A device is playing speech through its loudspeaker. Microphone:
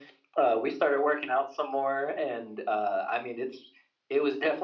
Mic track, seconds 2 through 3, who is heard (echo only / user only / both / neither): echo only